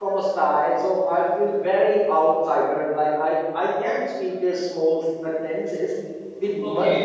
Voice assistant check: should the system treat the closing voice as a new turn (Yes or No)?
No